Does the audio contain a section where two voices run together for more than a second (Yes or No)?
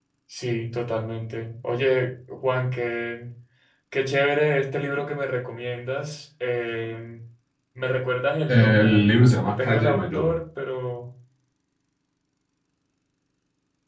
Yes